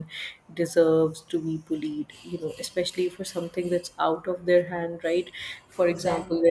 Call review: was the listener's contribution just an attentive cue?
Yes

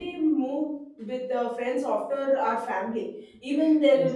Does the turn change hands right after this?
No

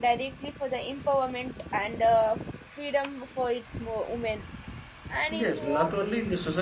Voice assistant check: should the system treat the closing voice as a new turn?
Yes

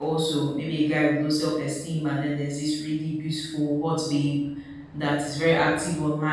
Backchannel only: Yes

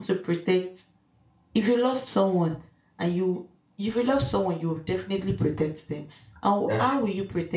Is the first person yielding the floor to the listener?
No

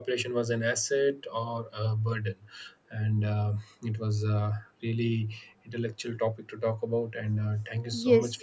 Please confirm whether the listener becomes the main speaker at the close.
Yes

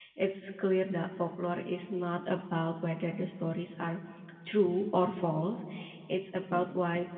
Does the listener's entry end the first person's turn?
No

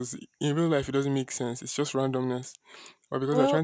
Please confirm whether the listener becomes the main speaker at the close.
No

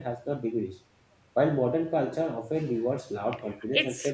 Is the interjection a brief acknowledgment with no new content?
Yes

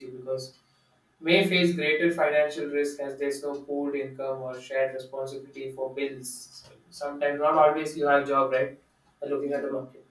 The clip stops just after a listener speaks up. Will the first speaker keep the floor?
Yes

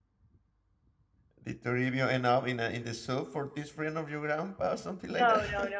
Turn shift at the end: Yes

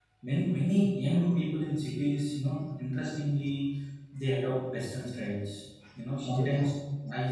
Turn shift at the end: No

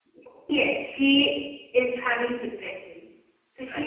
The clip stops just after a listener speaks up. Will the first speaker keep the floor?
Yes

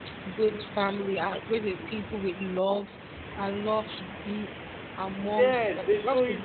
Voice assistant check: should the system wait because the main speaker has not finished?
No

